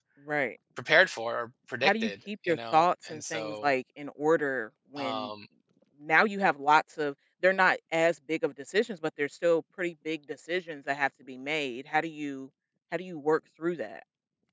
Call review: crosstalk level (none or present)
present